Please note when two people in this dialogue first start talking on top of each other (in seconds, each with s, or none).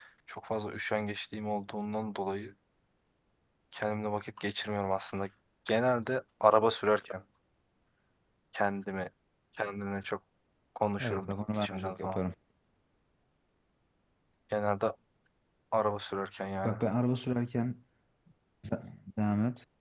11.0 s